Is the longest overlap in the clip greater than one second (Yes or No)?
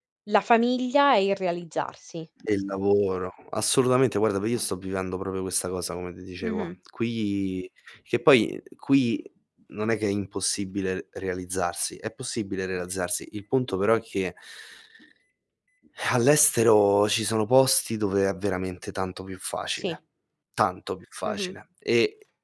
No